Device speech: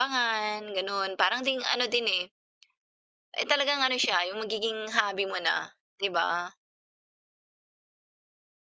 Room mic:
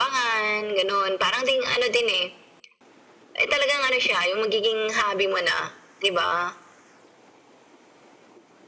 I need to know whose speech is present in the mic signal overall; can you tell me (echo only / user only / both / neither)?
echo only